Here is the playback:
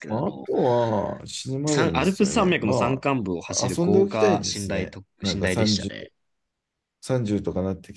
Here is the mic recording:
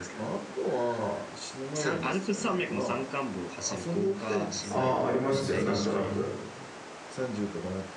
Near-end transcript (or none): ああ、ありますよ、なんとなく。